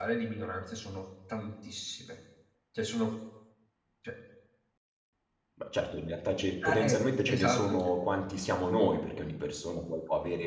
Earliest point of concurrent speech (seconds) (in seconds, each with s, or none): 6.6 s